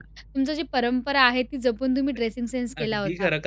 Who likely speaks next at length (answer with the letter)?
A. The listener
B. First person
A